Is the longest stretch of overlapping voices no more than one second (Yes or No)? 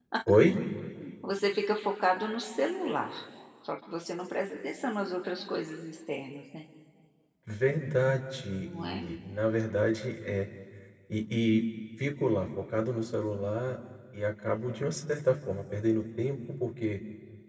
Yes